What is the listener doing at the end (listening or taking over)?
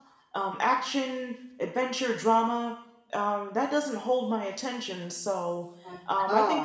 listening